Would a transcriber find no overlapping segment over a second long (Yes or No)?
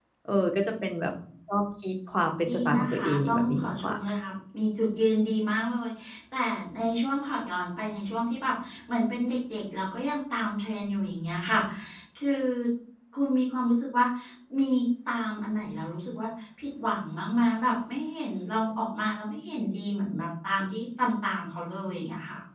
No